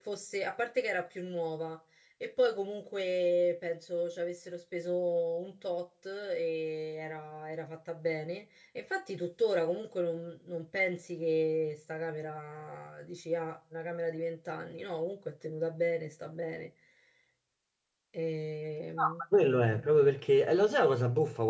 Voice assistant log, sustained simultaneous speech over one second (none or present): none